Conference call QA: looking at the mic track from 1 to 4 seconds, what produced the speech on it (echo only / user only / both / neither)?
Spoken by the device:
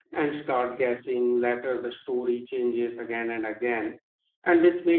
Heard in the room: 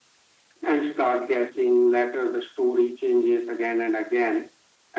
echo only